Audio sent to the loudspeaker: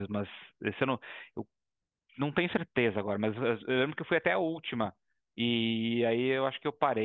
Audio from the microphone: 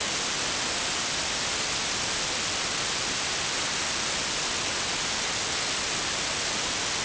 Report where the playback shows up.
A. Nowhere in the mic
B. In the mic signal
A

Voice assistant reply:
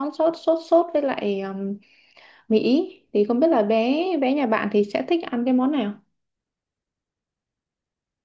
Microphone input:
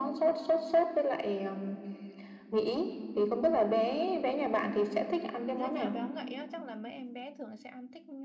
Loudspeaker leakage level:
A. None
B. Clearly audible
B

